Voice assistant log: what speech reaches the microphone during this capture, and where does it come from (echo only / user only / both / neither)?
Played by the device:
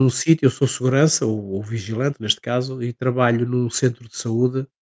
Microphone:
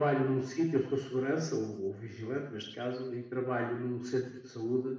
echo only